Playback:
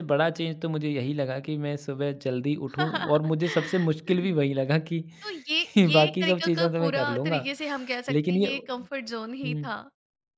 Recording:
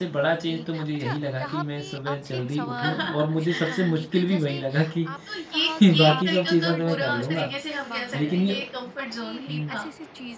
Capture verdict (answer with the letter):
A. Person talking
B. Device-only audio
A